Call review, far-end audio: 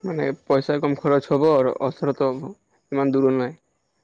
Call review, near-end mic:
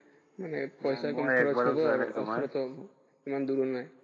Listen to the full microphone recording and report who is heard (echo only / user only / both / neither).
both